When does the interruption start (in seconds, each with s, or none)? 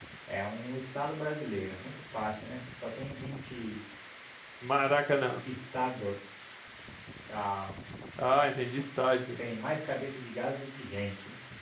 none